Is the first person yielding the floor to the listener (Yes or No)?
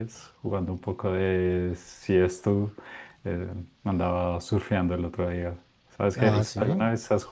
No